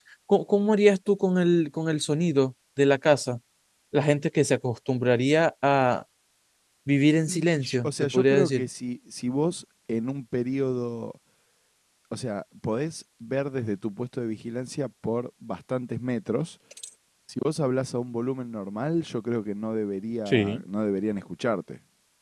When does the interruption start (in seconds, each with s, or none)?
7.3 s